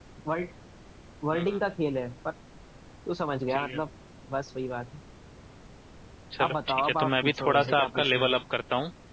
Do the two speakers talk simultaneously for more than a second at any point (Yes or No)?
Yes